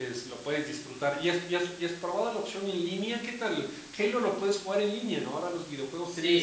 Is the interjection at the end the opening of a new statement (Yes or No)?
Yes